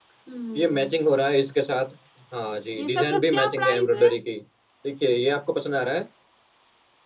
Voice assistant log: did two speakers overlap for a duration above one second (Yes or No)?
Yes